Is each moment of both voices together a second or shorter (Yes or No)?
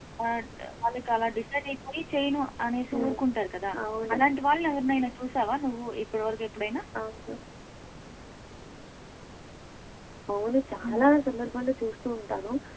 Yes